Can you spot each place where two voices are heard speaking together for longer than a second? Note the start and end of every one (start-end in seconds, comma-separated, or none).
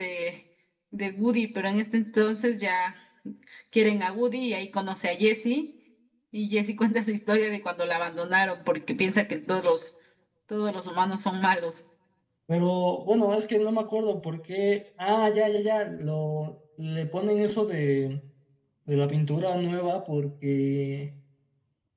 none